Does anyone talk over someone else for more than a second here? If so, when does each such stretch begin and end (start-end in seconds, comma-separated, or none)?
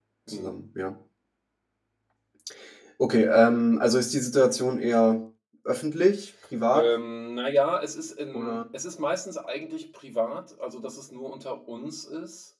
none